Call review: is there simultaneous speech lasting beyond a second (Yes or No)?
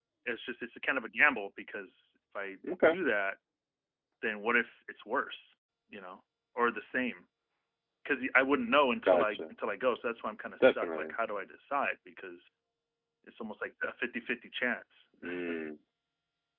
No